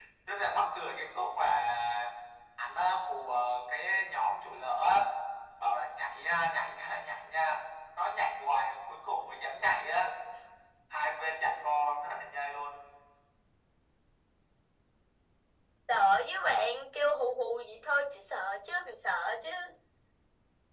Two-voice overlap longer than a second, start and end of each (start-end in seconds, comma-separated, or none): none